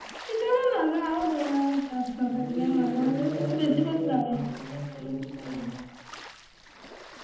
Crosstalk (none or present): present